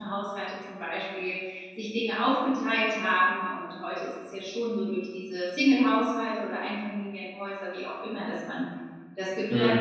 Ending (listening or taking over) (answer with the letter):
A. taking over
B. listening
B